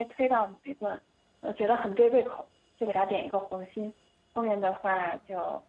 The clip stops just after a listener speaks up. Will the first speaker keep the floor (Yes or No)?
Yes